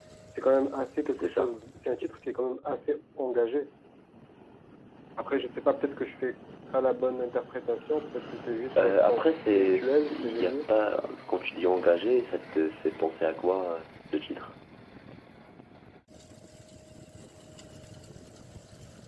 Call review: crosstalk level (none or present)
present